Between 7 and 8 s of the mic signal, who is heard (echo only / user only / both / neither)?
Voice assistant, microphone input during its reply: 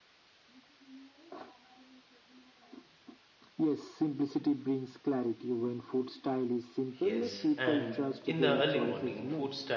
both